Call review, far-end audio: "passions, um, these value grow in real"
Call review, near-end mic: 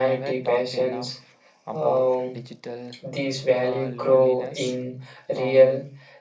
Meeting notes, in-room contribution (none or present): present